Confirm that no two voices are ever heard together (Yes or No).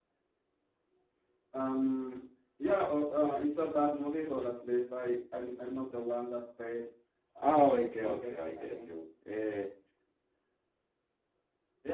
No